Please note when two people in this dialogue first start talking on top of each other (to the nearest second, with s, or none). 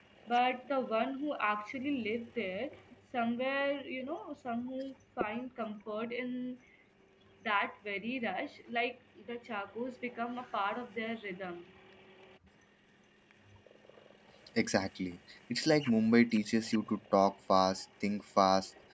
none